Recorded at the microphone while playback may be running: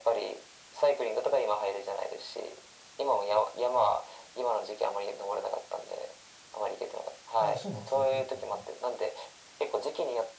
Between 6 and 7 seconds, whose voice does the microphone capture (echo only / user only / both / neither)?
echo only